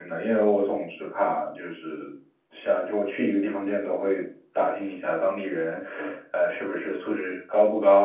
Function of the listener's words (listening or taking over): listening